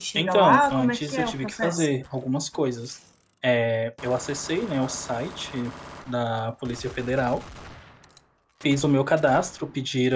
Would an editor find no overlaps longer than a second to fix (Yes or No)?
No